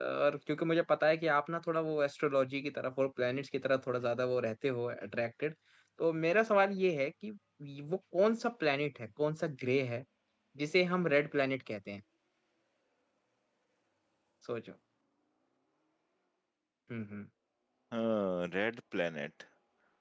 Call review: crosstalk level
none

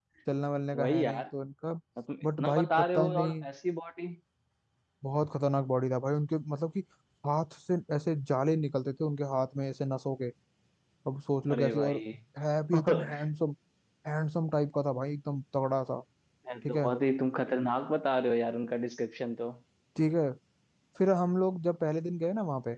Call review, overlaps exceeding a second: present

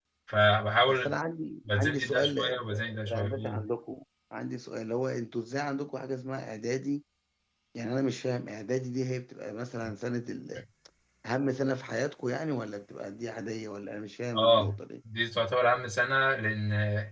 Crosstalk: present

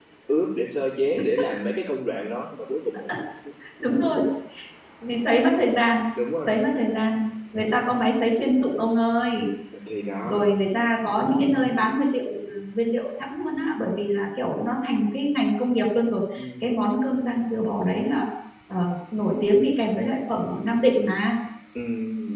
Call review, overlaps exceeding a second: none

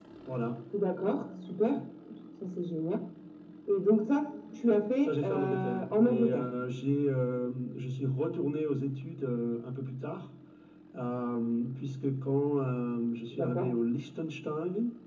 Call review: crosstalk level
present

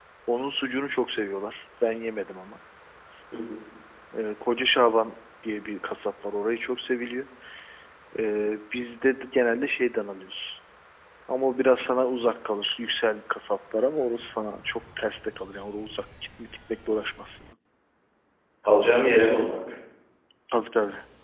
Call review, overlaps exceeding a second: none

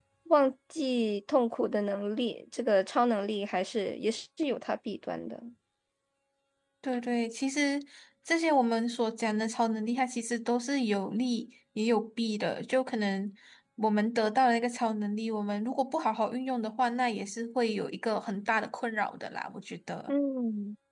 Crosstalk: none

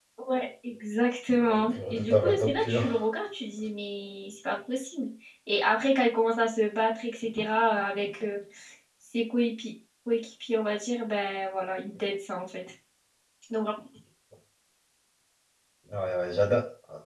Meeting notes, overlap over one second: present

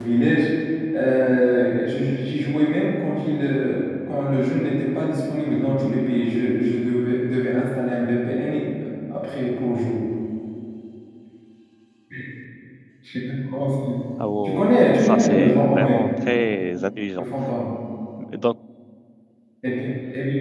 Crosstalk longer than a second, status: present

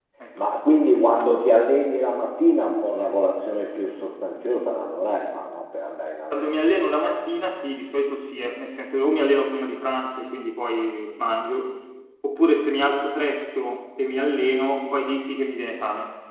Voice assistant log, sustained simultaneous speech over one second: none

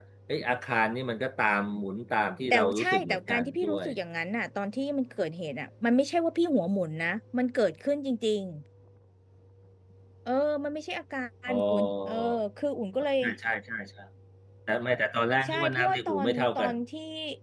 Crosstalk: present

